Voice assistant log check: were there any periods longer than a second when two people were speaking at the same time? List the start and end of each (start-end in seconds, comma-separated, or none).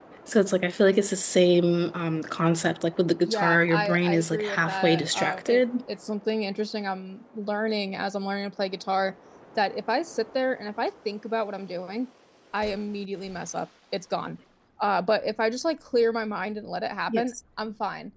3.3-5.6